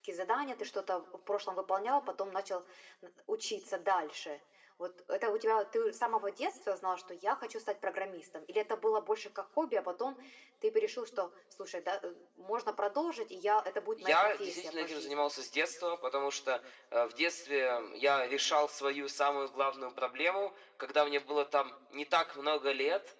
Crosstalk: present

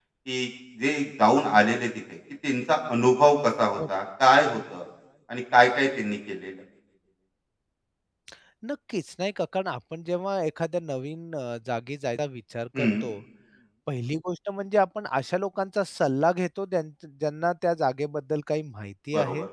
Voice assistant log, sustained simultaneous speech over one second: none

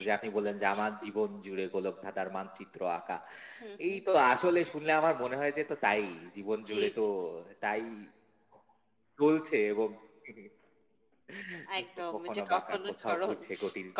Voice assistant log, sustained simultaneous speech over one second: present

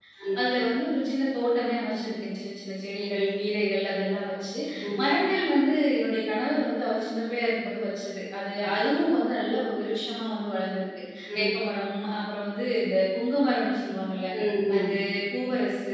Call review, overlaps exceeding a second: none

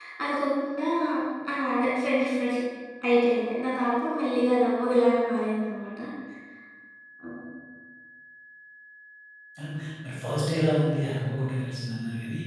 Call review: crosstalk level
none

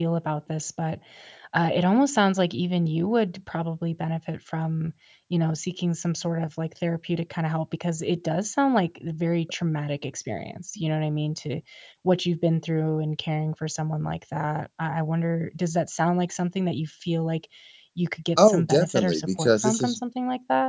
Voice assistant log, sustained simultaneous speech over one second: present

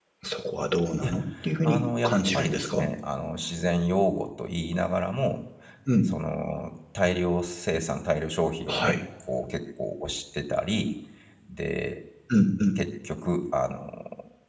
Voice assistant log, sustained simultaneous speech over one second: present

